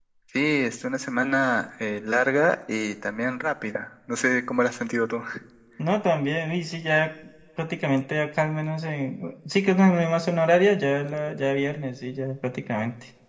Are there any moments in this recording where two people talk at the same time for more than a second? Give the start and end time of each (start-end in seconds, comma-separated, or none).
none